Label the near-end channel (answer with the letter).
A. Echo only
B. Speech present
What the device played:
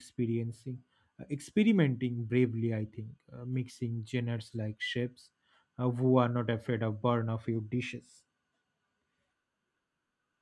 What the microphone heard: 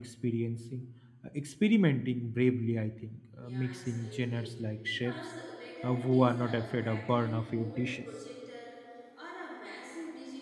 B